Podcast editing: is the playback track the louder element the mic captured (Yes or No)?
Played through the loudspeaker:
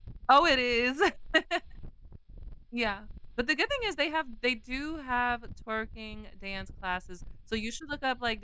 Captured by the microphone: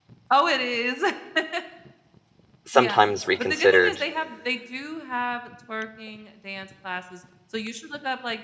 No